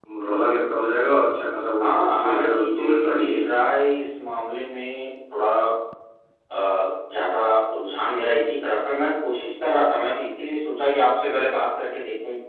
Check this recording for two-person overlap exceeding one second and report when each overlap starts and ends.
1.8-3.4

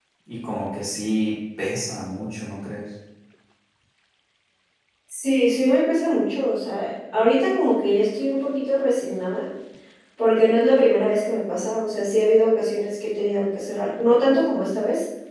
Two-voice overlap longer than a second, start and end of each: none

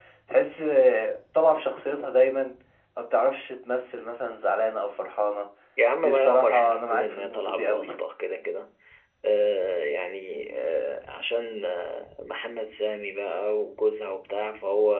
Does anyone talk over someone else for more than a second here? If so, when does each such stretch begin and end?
6.0-7.9

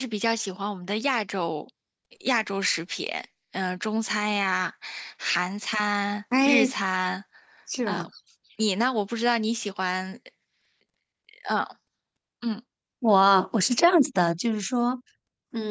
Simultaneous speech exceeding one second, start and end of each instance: none

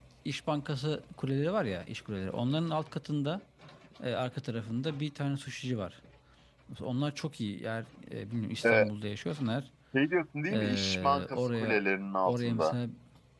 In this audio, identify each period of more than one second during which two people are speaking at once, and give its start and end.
10.5-11.8

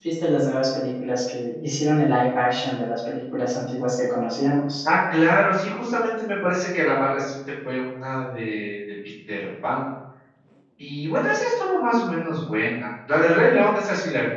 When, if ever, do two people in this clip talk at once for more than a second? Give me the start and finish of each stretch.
none

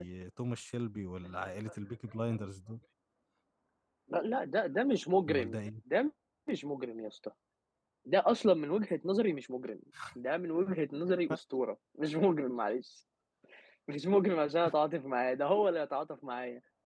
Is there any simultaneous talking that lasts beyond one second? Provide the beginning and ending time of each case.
none

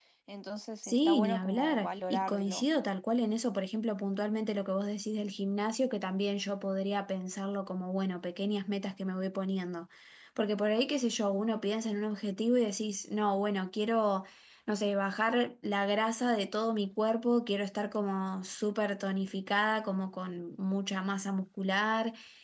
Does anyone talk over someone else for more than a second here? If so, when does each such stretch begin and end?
0.8-2.7

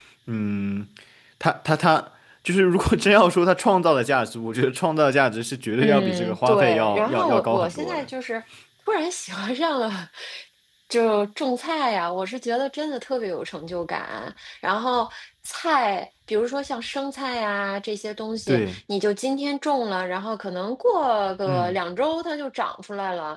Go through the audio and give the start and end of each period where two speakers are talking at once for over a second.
5.8-8.1

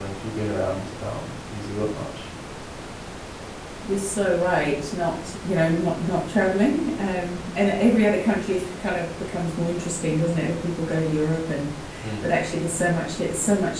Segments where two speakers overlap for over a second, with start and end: none

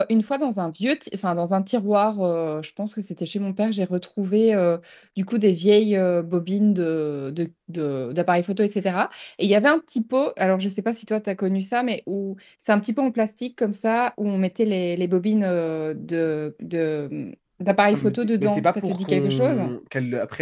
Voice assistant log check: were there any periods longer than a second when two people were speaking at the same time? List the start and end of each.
17.9-19.6

